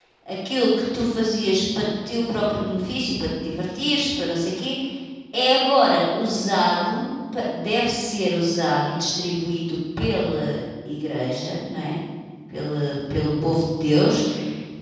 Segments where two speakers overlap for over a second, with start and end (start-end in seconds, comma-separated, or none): none